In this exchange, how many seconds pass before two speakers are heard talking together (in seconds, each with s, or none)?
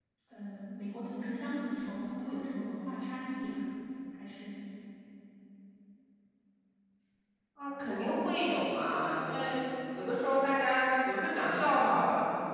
none